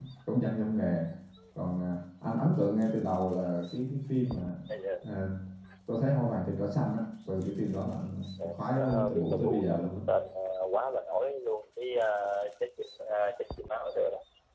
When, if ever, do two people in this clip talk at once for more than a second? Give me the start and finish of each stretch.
8.4-9.9

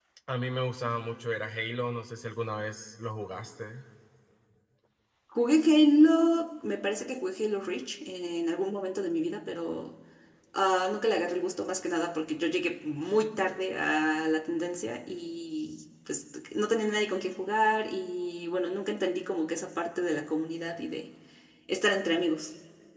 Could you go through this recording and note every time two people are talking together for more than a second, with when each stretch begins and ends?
none

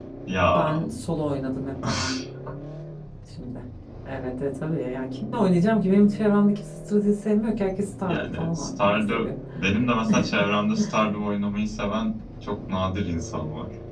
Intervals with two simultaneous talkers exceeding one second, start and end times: 8.1-9.3

